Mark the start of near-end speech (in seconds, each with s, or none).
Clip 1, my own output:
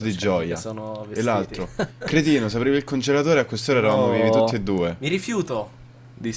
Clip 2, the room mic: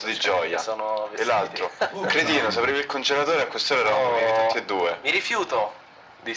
1.3 s